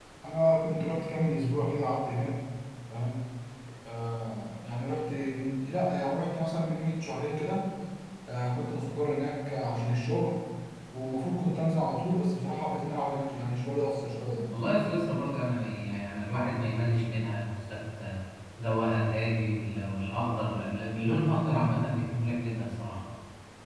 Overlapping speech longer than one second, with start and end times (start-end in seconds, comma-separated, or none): none